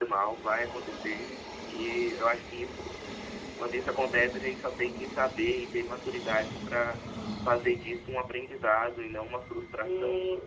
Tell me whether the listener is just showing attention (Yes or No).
No